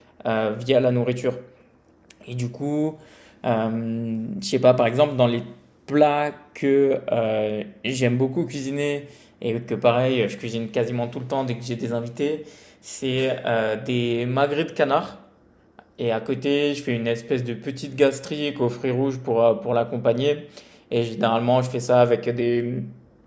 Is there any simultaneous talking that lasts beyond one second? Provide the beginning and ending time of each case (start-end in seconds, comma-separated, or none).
none